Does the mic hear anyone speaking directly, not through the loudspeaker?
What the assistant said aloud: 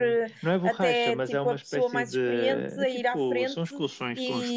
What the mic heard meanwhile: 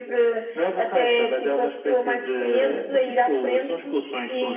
No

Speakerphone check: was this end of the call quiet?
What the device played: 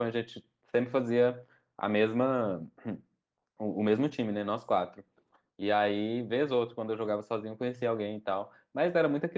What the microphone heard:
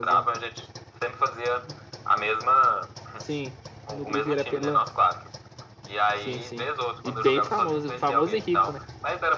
No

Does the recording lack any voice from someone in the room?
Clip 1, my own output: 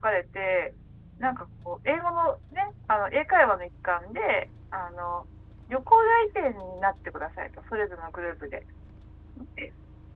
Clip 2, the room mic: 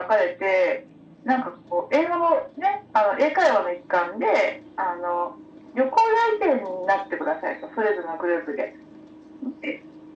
Yes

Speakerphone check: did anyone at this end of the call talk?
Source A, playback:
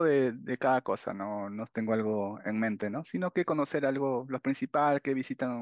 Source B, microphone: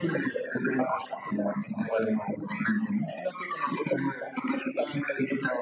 No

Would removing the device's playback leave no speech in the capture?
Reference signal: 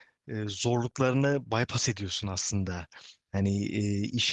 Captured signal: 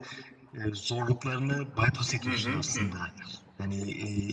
No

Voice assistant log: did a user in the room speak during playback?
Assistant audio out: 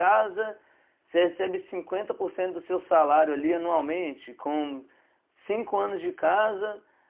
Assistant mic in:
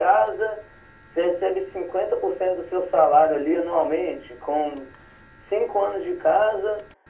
No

